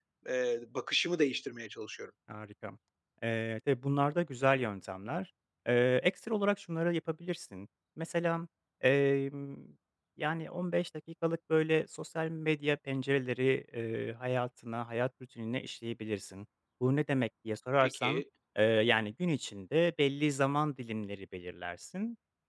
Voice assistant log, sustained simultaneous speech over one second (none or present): none